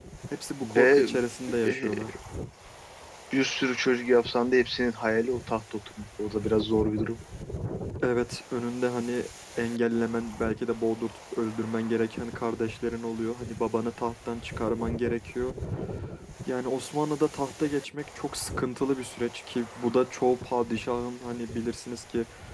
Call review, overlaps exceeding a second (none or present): none